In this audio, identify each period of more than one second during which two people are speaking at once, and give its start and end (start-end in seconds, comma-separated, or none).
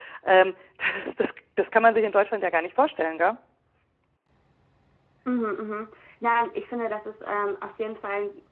none